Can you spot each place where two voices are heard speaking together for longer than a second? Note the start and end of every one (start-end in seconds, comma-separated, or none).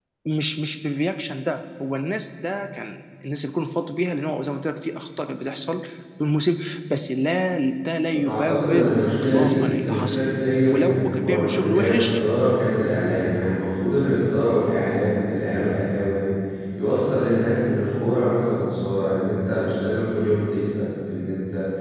8.3-10.2, 10.7-12.2